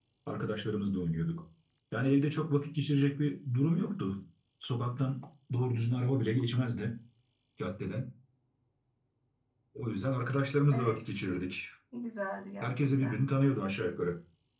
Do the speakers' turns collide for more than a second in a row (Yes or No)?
No